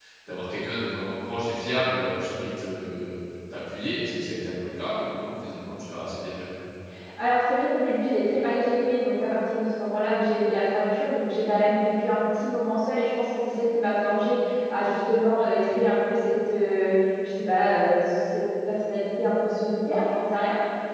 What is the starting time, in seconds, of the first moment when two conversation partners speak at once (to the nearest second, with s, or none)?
none